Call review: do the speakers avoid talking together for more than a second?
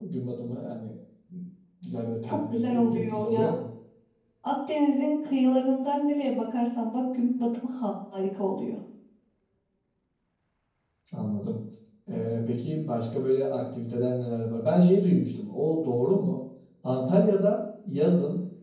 No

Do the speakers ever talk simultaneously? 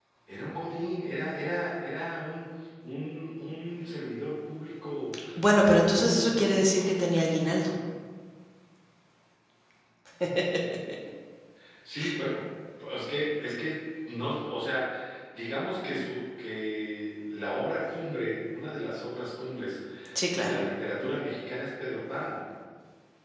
Yes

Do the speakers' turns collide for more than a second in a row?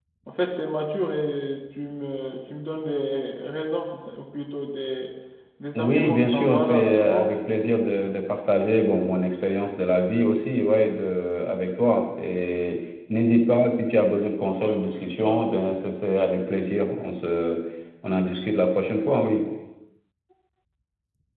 Yes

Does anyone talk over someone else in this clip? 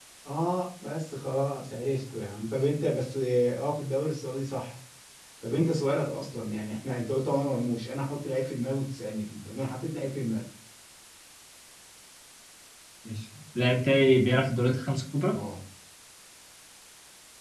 No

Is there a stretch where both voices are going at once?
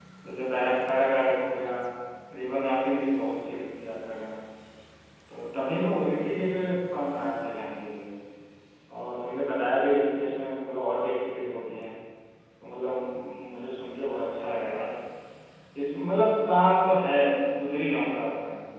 No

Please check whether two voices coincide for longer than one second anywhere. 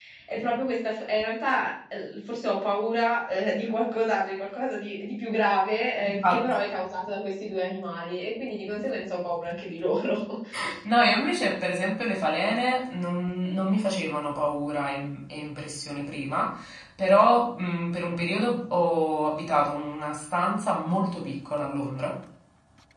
No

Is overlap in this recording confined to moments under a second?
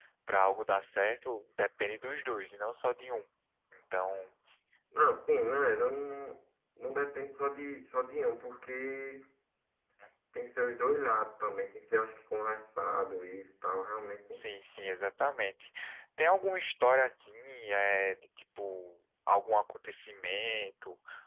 Yes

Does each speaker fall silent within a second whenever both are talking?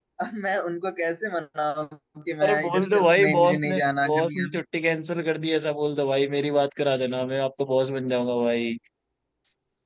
No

